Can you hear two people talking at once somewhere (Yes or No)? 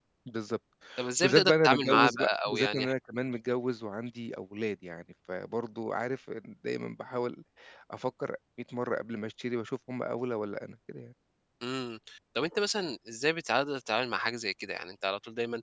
Yes